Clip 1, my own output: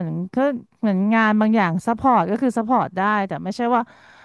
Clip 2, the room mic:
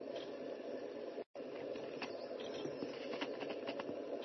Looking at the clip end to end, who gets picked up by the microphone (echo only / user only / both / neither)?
neither